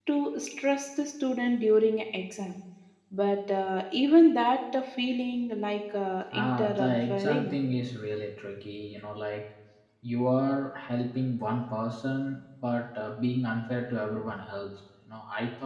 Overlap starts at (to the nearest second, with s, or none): 6 s